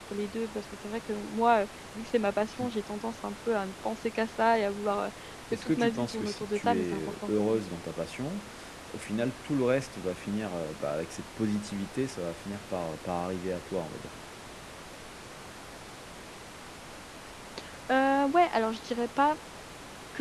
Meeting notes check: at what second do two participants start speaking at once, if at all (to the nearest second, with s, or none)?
6 s